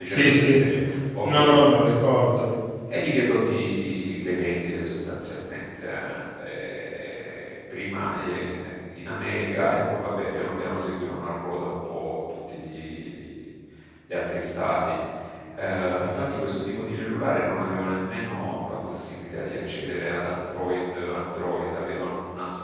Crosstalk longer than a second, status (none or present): none